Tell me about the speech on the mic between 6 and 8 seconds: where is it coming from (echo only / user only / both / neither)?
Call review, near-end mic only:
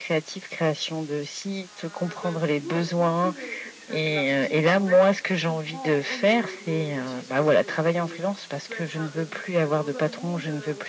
both